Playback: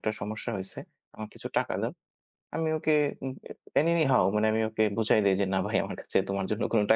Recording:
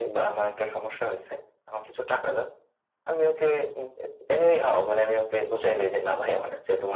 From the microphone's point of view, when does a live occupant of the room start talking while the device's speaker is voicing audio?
none

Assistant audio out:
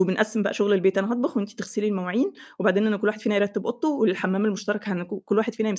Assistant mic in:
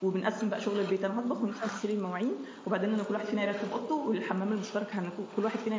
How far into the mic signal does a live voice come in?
1.3 s

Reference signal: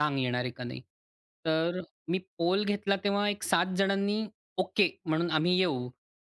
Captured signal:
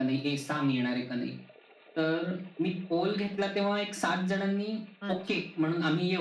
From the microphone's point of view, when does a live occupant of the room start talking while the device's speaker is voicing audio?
5.0 s

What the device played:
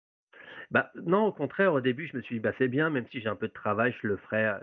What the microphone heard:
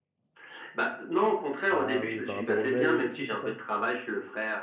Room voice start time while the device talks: 1.7 s

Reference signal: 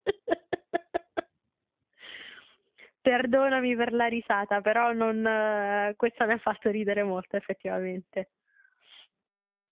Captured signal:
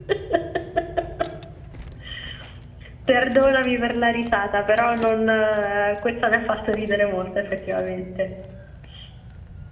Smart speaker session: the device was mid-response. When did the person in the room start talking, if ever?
none

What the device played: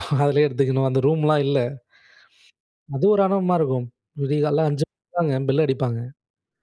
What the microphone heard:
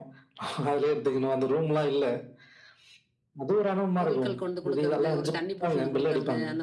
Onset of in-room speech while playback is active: 4.0 s

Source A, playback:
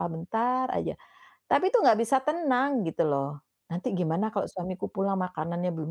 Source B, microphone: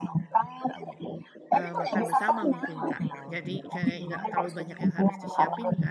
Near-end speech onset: 1.5 s

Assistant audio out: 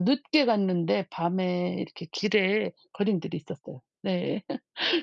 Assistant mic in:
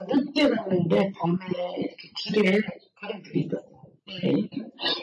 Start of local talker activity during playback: none

